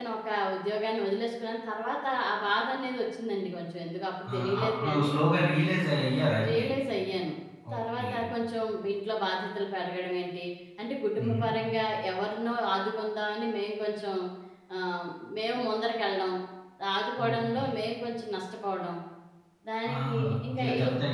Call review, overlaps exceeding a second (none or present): present